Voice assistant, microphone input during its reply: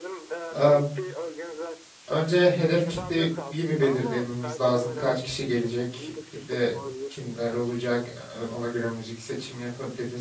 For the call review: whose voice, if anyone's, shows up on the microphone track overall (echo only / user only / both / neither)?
both